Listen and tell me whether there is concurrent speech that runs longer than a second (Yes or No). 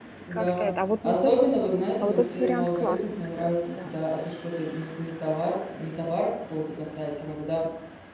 Yes